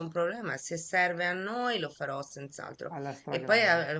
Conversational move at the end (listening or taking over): listening